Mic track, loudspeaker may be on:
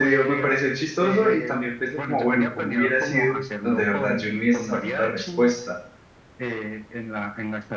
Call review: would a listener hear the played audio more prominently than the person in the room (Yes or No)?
No